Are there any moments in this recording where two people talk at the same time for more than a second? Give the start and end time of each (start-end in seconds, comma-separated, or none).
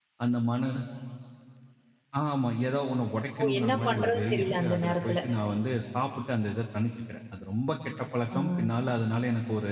3.4-5.2